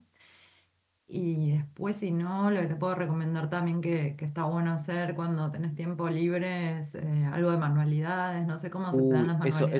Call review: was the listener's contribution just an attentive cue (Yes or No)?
No